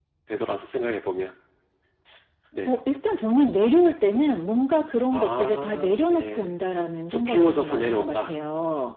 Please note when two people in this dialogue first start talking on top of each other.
5 s

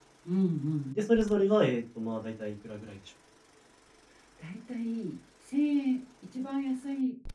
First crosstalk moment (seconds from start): none

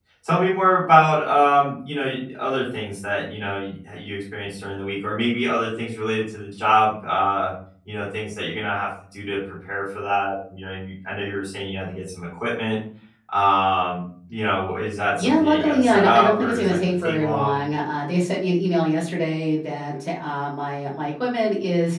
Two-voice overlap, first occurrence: 15 s

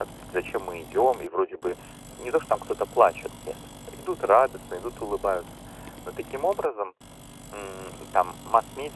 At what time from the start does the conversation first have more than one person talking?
none

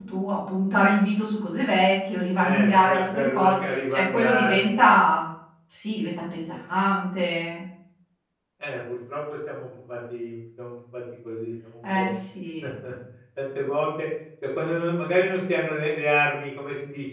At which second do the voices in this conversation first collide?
2 s

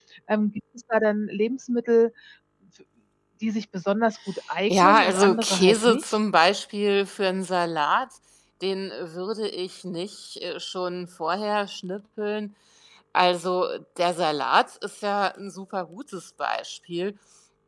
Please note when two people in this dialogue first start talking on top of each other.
5 s

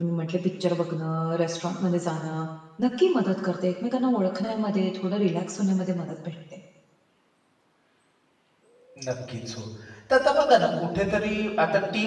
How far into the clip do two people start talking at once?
none

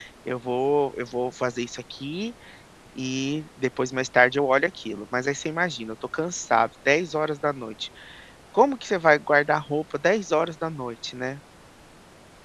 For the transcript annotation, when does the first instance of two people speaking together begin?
none

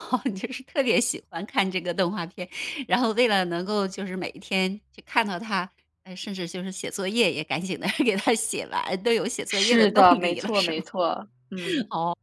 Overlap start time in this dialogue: 9 s

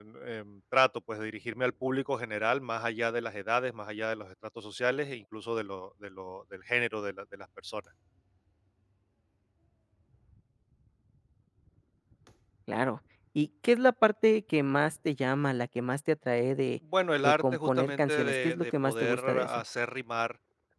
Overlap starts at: 17 s

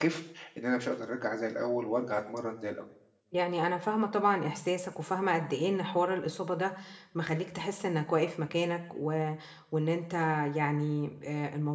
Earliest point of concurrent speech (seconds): none

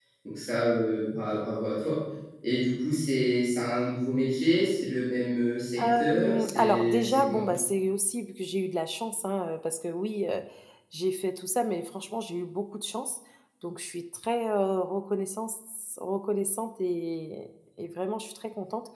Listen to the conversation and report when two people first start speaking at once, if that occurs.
6 s

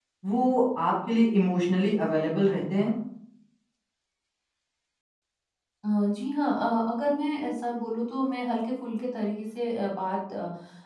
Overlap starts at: none

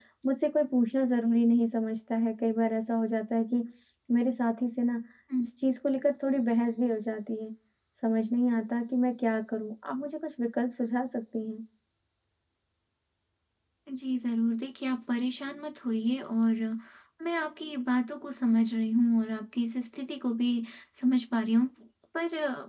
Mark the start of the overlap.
none

